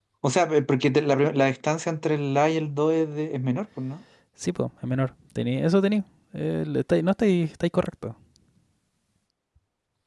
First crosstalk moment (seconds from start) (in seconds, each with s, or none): none